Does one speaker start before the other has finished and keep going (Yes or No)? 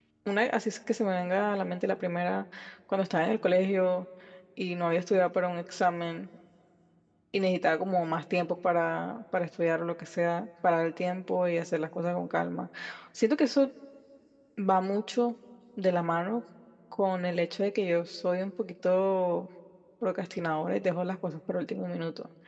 No